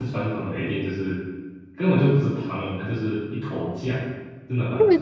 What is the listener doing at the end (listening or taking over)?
taking over